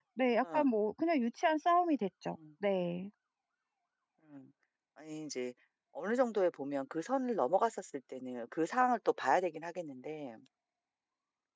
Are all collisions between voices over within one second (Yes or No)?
Yes